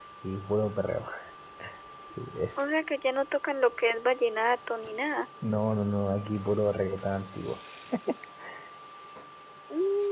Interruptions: none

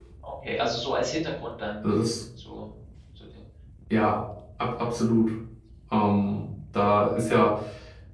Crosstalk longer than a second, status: none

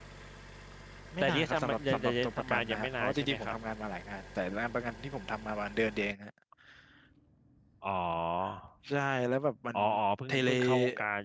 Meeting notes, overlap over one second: present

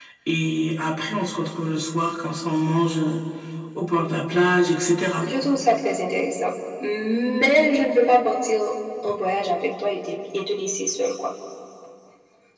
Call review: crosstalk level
none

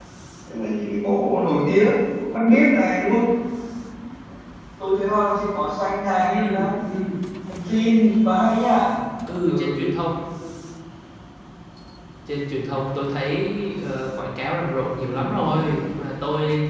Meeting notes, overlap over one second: none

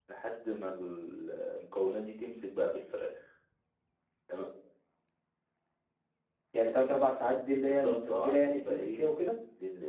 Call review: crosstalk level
present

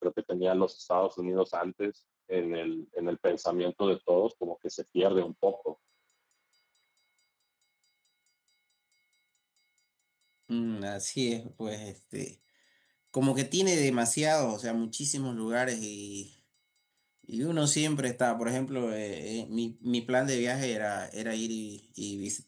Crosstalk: none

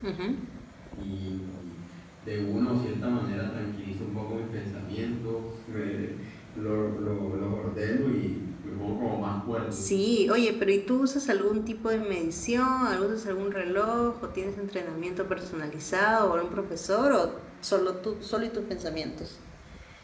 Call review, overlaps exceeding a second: none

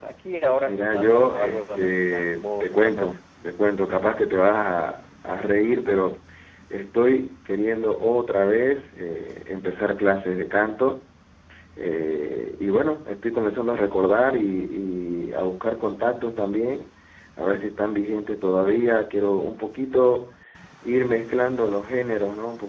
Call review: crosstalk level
present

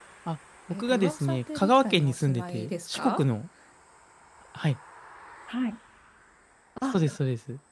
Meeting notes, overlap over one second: present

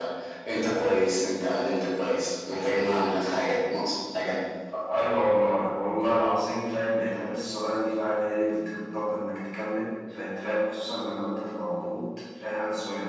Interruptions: none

